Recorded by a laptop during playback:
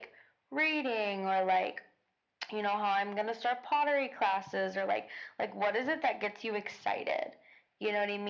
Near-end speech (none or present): none